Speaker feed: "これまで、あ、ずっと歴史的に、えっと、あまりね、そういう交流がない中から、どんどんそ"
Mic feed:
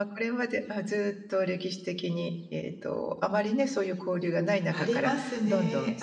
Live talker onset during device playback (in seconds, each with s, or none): 4.7 s